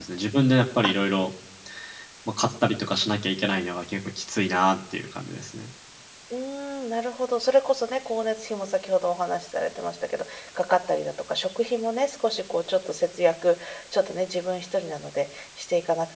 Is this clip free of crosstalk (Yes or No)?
Yes